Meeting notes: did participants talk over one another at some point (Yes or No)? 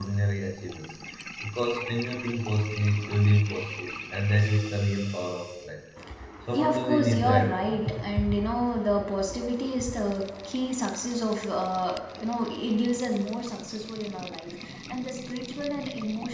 Yes